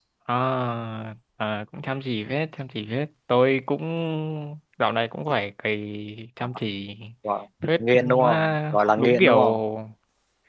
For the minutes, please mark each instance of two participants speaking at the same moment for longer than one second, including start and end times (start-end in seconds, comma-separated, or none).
7.8-9.3